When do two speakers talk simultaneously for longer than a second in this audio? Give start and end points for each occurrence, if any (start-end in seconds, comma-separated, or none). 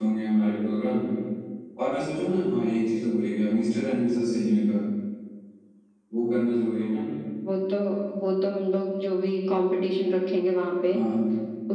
none